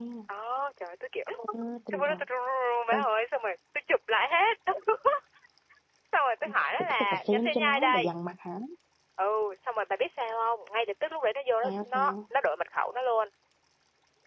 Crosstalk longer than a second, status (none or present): present